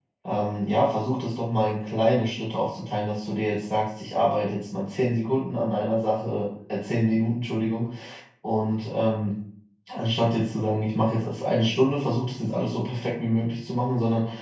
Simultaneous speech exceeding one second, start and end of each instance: none

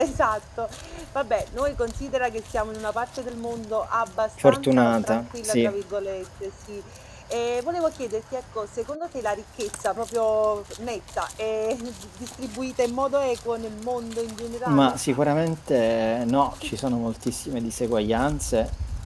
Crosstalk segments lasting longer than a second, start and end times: 4.4-5.7

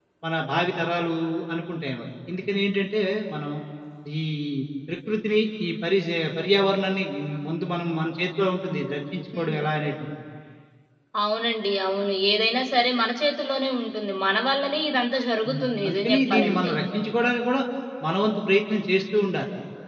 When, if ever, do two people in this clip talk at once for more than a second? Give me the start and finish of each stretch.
15.5-16.7

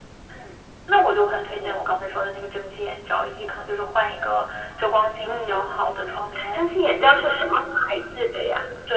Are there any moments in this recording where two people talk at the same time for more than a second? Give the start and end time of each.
5.3-6.6

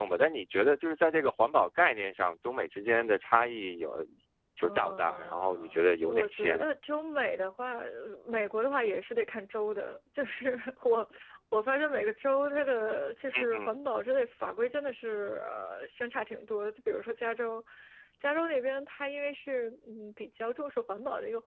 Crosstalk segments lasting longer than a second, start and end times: 4.6-6.7

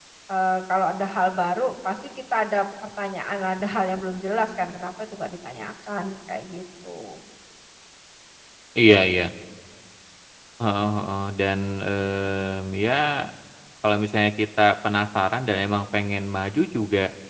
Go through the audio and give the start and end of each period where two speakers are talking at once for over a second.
none

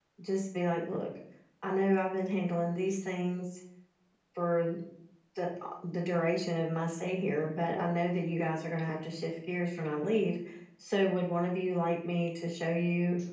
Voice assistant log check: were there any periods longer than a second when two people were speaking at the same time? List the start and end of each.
none

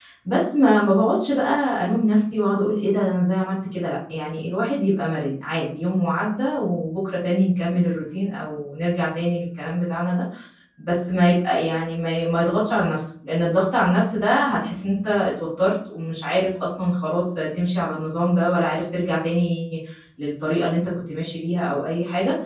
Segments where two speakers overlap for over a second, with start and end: none

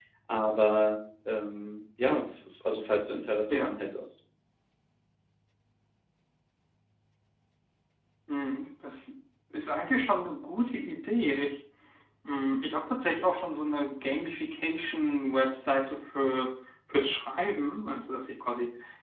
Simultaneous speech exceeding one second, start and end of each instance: none

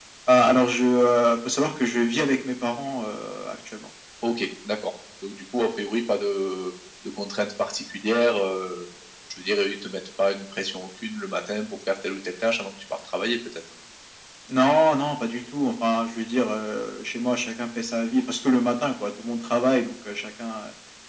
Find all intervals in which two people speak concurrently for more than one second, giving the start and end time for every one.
none

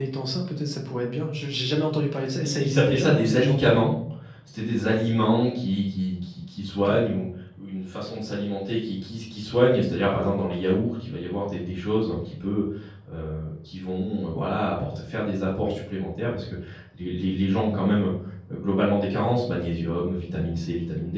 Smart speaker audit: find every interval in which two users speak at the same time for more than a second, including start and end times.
2.4-3.8

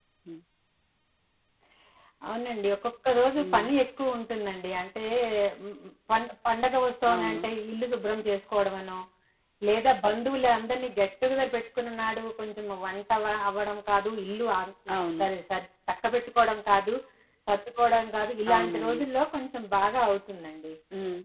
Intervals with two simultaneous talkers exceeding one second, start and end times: none

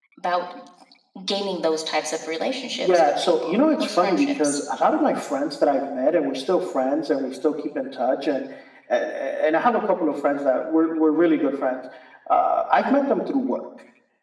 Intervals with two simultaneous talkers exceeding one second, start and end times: 2.7-4.6

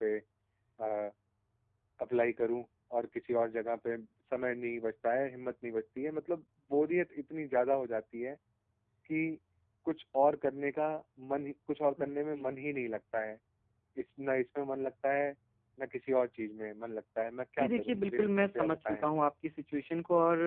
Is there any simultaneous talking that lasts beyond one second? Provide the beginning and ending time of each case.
17.6-19.1

